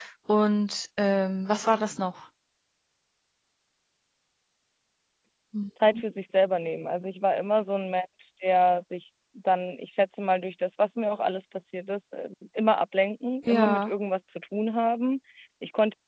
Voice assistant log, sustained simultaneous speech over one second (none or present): none